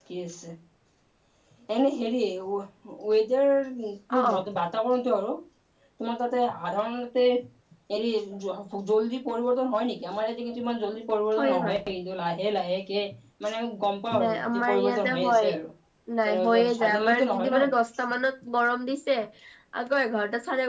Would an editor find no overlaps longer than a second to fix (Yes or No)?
No